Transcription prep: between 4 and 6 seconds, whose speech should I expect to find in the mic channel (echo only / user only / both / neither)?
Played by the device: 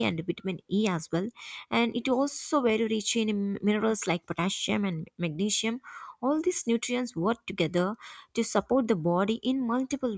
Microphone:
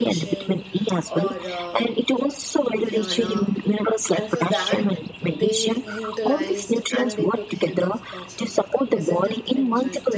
both